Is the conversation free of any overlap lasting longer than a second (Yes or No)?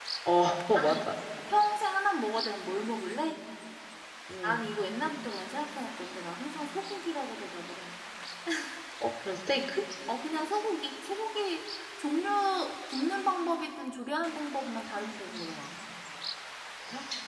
Yes